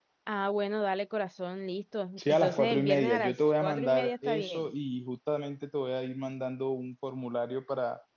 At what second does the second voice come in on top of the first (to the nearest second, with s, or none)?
2 s